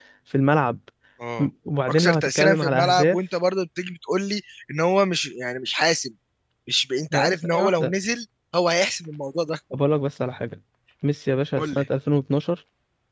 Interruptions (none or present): present